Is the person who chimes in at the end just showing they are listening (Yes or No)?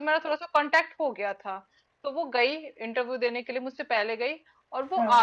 Yes